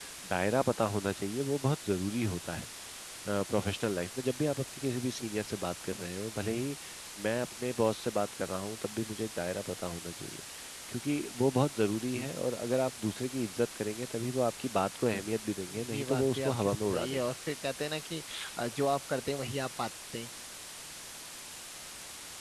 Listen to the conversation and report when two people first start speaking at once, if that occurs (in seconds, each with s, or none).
15.7 s